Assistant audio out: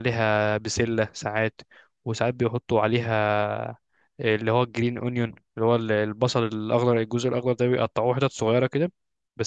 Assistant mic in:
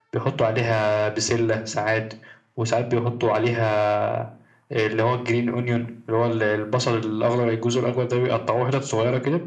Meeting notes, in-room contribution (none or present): none